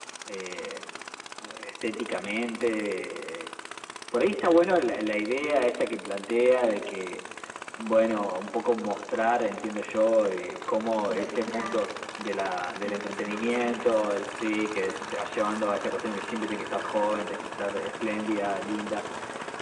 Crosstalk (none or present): present